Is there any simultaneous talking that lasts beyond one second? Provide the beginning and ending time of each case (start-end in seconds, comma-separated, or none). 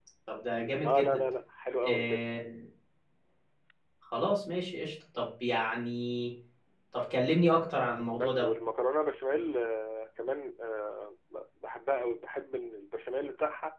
none